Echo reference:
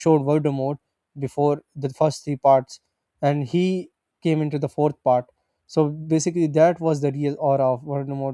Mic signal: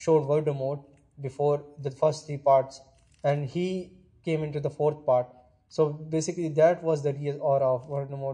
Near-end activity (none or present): none